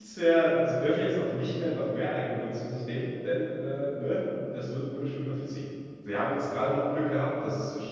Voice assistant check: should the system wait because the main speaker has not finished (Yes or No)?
Yes